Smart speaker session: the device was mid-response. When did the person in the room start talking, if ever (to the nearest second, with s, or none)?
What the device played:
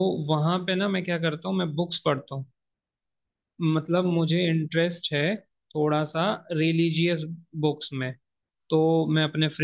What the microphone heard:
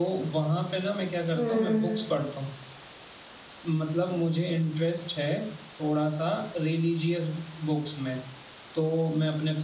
1 s